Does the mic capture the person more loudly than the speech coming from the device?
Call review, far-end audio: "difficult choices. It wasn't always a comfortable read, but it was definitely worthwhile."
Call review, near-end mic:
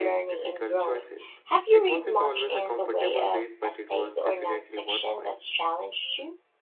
Yes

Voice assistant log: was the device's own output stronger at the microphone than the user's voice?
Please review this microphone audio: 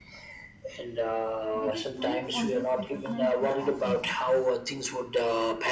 Yes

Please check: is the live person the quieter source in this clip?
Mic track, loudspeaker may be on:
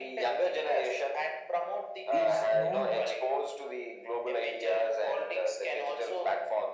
Yes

